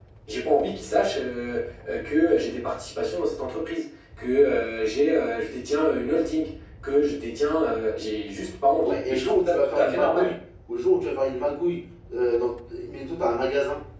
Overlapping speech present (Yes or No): Yes